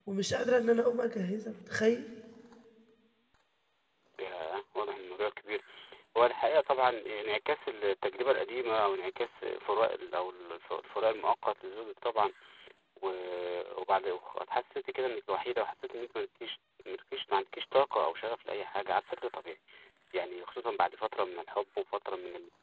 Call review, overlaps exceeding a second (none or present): none